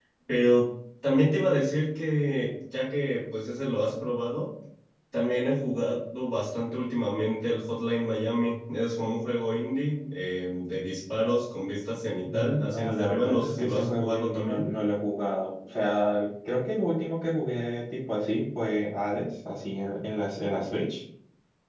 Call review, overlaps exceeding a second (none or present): present